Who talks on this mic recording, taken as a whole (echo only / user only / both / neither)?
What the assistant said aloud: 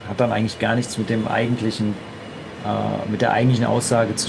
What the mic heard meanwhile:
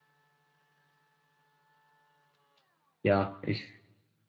user only